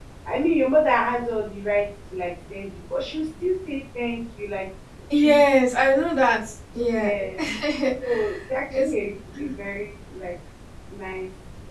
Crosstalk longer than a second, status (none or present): none